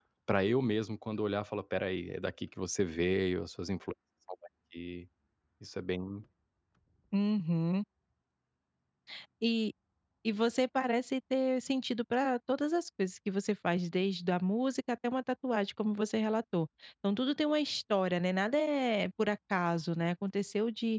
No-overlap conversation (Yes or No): Yes